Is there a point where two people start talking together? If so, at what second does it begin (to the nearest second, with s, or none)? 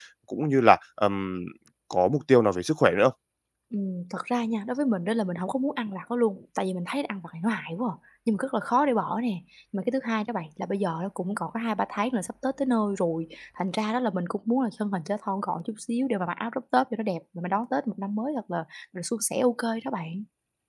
none